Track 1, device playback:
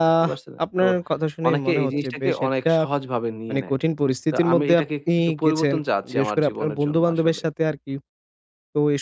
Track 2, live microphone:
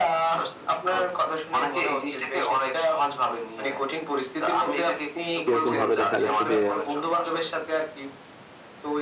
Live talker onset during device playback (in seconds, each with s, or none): 5.5 s